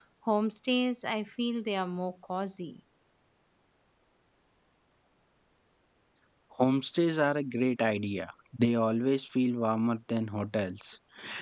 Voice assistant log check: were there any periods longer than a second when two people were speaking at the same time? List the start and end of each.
none

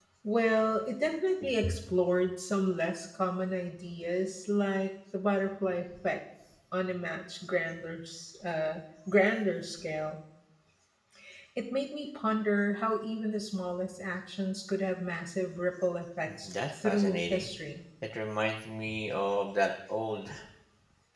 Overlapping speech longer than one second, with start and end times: 16.3-17.5

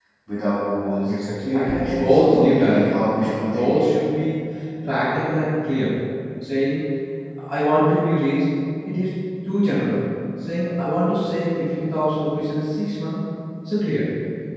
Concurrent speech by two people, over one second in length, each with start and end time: 1.5-3.9

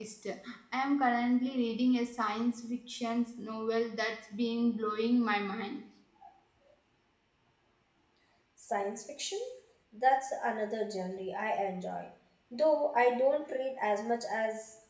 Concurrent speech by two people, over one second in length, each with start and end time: none

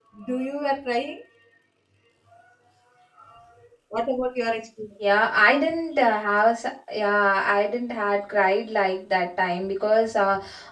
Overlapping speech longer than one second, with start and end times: none

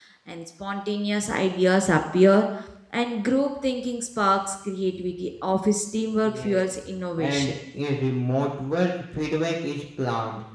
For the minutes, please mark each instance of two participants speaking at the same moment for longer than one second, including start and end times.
6.2-7.5

